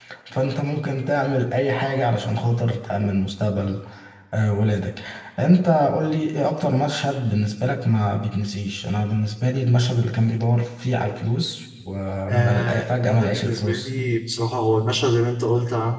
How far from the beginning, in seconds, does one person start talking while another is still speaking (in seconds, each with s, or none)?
12.3 s